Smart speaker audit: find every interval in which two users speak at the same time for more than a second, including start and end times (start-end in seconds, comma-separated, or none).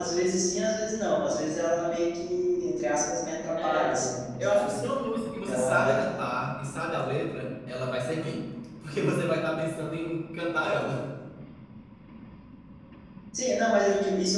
none